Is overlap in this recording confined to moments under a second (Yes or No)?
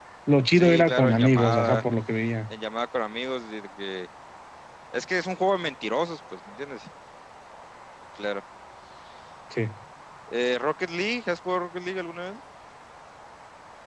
No